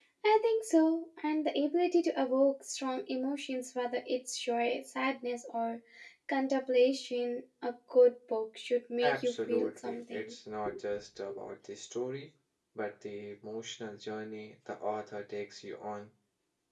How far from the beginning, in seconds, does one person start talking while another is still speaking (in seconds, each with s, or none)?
9.0 s